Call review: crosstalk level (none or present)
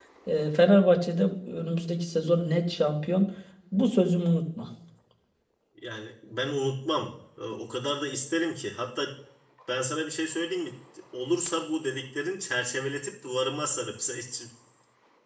none